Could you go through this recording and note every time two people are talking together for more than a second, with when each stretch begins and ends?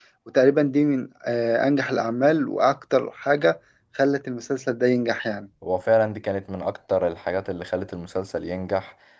none

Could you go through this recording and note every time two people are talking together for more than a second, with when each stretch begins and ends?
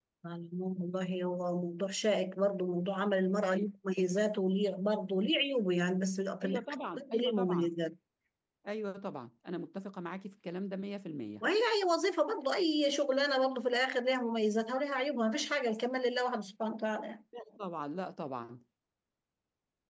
6.4-7.7

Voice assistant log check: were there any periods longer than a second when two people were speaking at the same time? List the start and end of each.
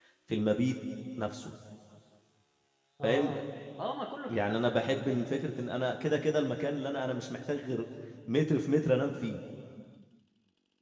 none

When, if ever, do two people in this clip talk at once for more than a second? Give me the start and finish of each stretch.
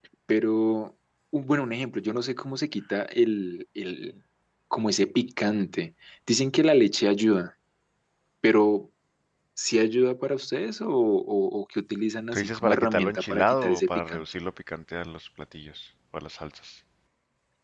12.3-14.2

